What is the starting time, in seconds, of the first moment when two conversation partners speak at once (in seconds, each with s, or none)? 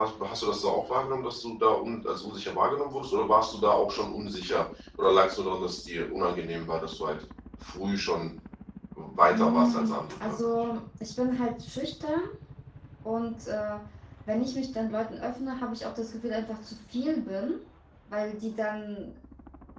9.3 s